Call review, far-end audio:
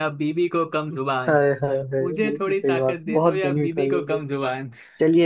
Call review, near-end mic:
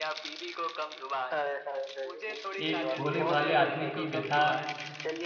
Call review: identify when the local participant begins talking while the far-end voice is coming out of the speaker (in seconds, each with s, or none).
2.6 s